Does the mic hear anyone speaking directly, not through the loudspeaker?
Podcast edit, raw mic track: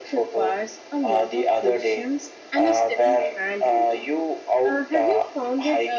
Yes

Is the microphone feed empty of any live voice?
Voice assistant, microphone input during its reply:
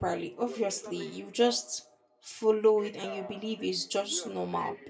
No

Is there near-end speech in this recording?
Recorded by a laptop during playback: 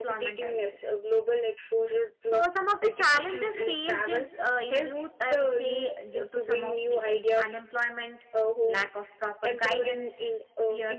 Yes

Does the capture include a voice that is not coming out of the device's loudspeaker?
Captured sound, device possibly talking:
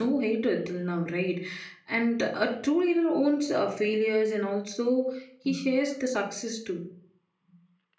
Yes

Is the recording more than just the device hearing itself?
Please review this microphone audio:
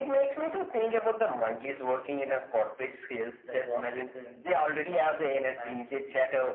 Yes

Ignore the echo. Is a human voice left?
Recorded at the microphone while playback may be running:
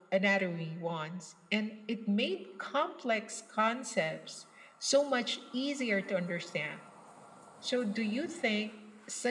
No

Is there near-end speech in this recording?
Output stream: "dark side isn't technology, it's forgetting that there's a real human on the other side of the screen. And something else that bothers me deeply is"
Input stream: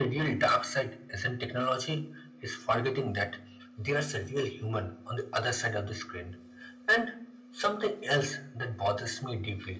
No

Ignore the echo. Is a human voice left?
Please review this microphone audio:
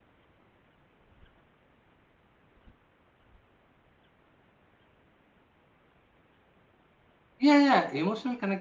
Yes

